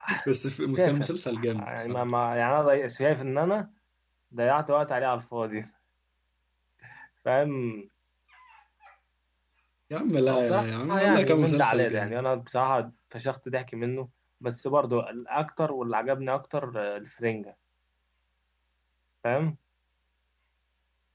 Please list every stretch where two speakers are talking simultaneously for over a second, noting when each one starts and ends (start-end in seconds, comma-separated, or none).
0.8-2.0, 10.3-12.2